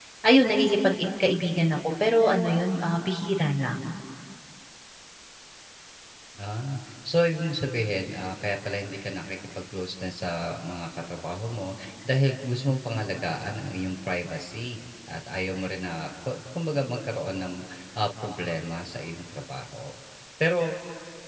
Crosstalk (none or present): none